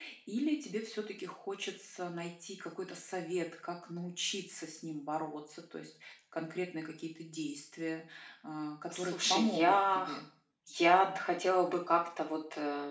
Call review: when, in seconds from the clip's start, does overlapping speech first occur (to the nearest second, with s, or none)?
9 s